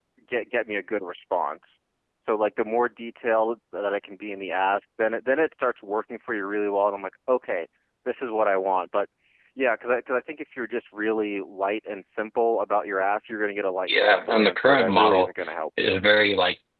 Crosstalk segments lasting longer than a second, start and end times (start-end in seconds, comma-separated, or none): 13.9-15.3